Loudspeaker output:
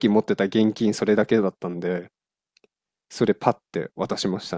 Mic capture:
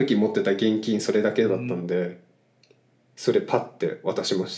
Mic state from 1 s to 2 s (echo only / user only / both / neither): both